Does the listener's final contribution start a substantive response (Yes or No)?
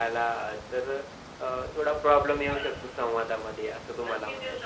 Yes